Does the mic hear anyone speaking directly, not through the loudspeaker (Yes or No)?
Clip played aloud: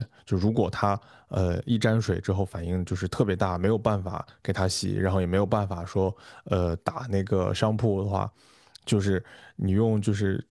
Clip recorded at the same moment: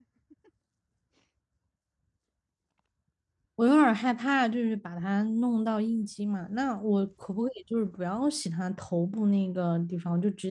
Yes